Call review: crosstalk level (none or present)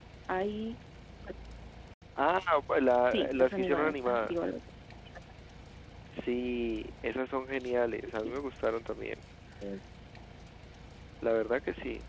present